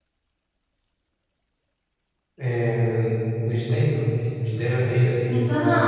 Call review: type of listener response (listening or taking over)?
taking over